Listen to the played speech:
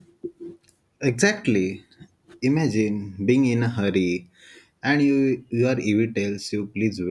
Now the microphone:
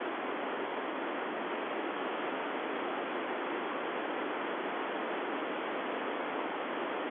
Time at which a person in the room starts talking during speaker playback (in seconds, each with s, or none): none